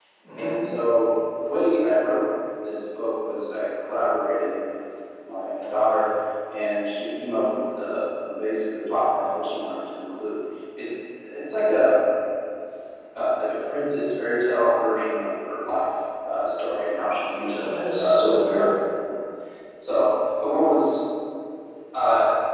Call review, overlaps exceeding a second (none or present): present